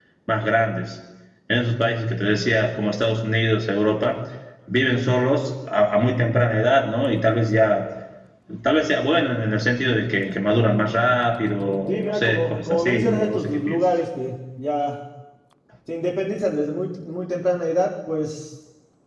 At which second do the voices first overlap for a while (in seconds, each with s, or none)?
11.9 s